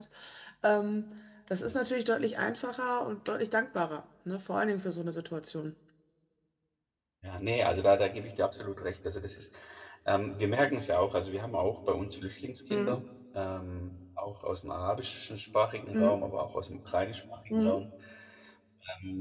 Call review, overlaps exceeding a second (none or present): none